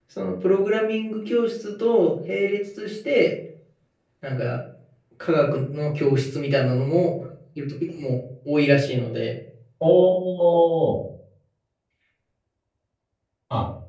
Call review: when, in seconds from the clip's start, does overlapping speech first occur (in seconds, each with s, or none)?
none